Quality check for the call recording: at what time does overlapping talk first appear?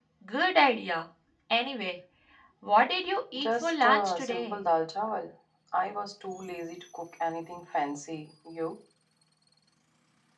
3.4 s

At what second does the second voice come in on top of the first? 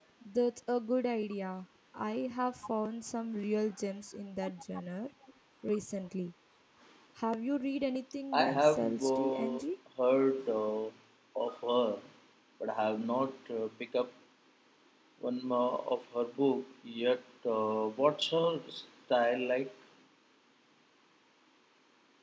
8.3 s

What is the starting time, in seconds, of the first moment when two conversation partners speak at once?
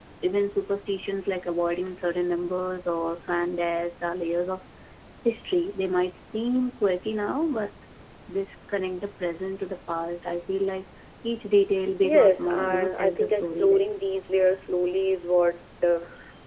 12.0 s

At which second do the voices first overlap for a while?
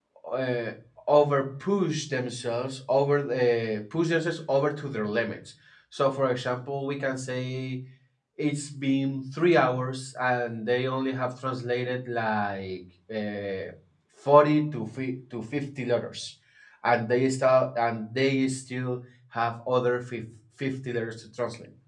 none

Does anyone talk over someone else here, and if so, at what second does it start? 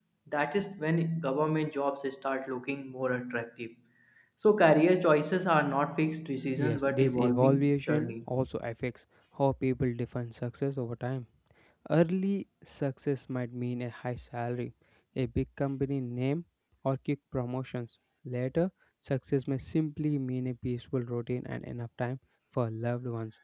6.5 s

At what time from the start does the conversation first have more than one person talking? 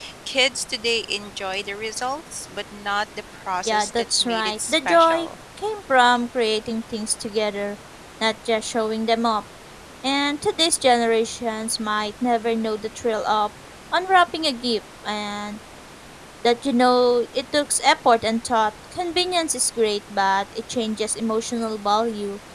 3.6 s

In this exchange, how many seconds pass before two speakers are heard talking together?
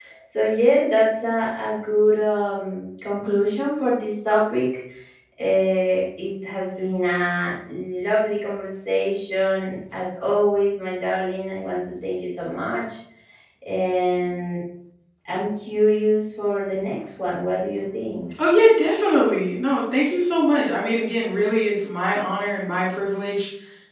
none

